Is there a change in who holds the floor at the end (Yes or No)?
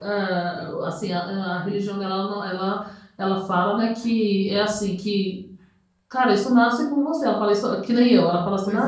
No